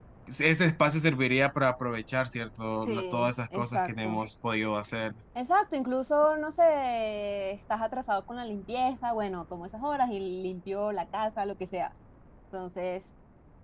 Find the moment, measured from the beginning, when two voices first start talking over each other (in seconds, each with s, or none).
2.9 s